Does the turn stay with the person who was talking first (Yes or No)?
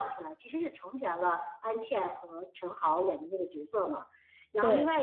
Yes